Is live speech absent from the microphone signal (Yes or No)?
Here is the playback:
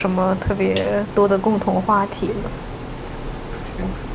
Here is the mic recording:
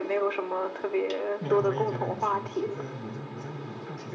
No